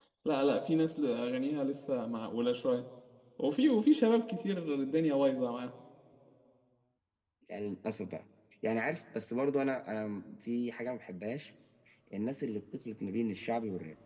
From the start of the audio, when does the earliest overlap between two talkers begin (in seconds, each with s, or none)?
none